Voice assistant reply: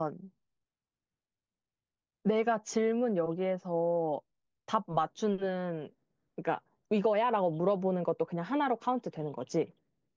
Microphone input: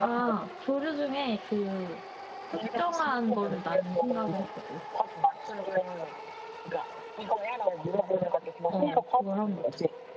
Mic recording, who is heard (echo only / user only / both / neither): both